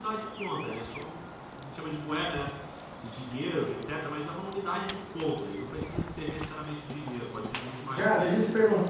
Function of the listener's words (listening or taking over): taking over